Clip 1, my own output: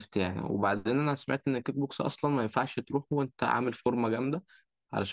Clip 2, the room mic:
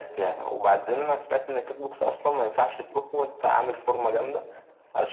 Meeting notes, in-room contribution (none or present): none